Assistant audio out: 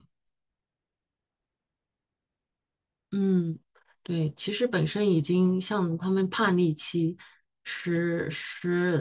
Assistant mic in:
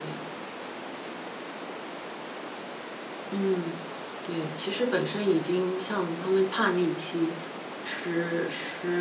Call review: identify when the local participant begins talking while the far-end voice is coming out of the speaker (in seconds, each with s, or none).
none